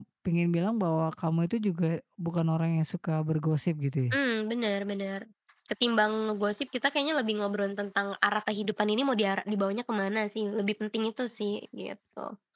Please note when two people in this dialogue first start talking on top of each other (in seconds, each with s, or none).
none